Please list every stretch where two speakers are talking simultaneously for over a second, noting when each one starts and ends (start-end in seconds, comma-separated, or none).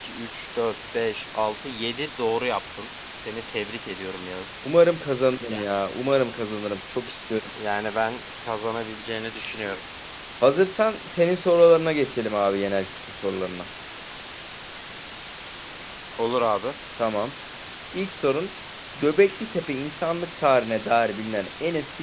none